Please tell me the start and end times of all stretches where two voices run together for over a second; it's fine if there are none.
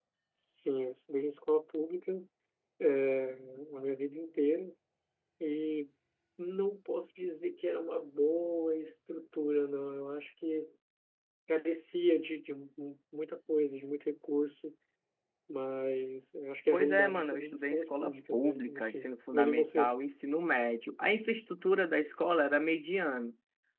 16.7-19.9

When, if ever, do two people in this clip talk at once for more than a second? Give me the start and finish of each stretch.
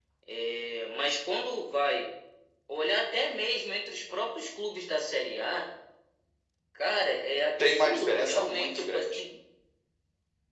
7.6-9.2

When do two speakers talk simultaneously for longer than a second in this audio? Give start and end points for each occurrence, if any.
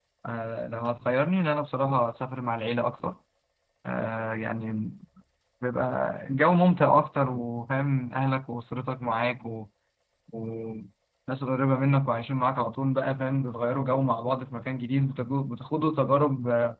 none

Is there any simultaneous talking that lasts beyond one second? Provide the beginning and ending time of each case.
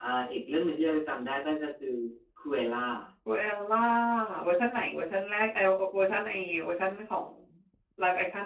none

